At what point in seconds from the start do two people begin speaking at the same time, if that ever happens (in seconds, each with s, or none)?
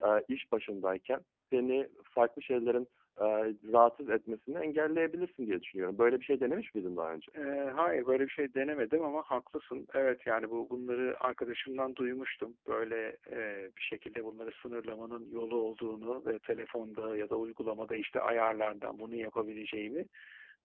none